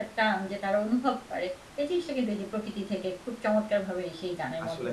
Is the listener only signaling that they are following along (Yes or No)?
No